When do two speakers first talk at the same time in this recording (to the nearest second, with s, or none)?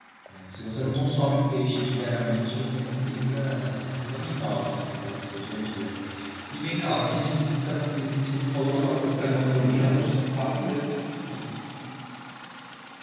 9 s